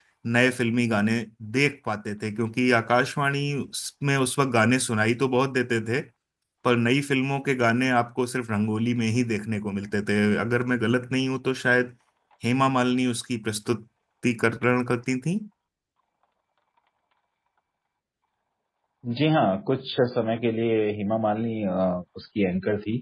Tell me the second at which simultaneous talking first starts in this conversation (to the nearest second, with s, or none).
none